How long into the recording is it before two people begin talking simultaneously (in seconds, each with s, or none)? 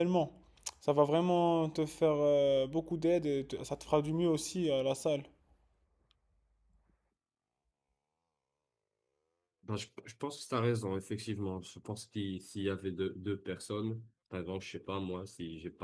none